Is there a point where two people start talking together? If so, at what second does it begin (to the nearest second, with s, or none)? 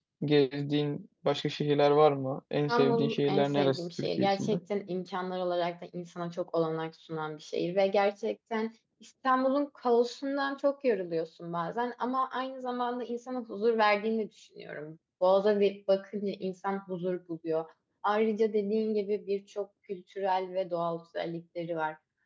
3 s